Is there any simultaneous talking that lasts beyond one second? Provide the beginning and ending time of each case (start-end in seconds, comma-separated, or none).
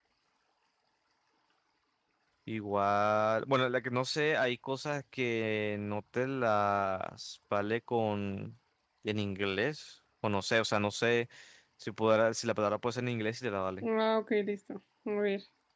none